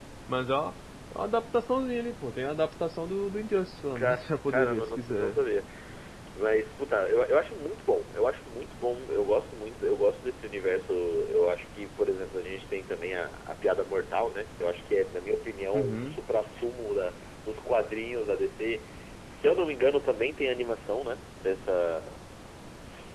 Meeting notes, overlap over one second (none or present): present